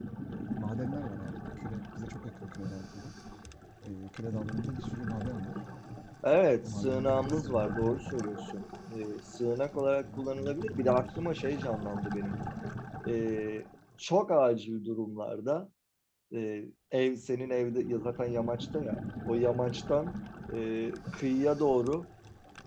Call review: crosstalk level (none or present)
present